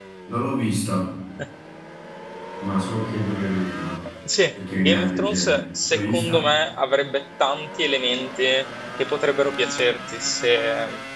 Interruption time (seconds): 4.5 s

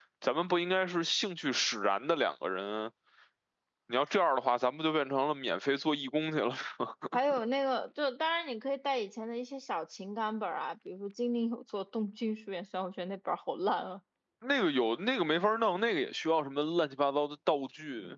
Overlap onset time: none

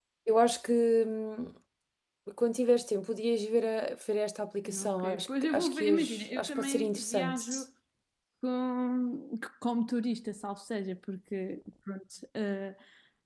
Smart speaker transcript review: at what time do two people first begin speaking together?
4.7 s

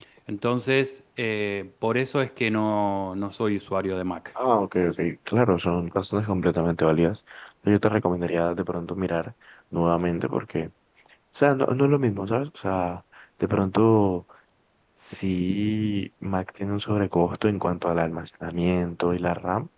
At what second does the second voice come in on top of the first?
none

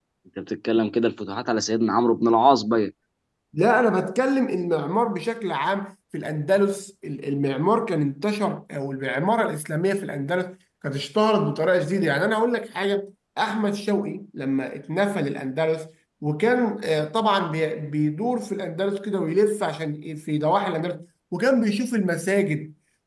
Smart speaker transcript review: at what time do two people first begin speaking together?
none

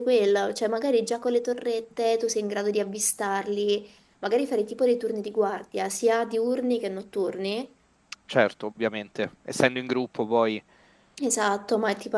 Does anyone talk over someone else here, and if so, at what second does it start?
none

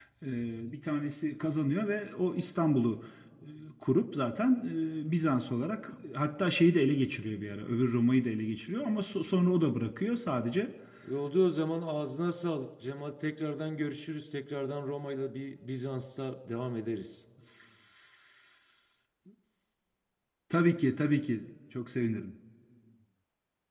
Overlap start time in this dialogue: none

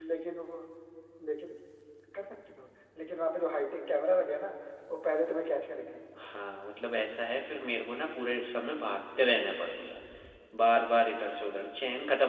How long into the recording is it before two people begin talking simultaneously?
none

